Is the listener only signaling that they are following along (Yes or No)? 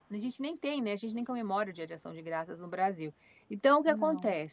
Yes